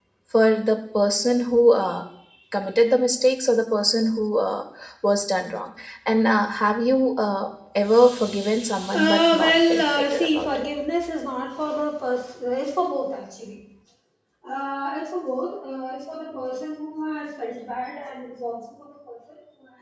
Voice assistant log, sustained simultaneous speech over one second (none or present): present